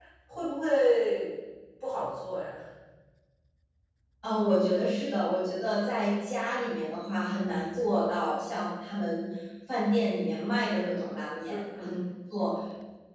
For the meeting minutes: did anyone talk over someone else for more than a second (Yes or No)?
No